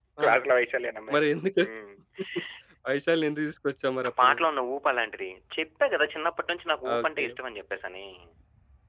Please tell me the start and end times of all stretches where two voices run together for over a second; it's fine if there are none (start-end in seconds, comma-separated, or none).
none